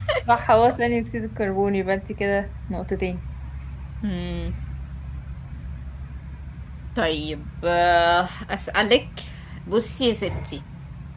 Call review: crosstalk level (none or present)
none